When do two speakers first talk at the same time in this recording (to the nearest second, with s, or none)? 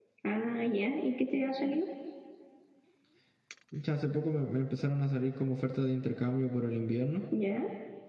none